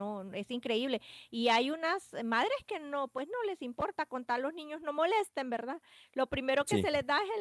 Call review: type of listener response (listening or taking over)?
listening